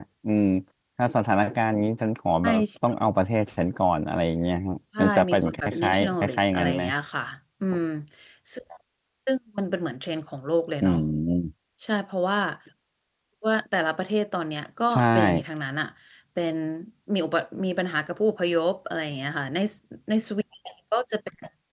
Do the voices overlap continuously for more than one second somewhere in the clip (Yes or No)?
Yes